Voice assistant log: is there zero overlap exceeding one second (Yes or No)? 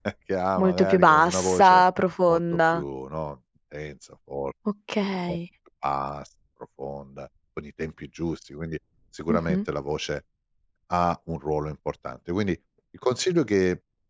No